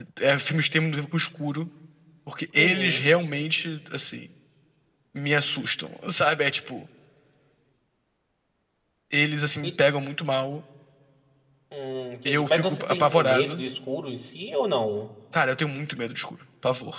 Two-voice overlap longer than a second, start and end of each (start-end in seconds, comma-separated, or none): 12.2-13.6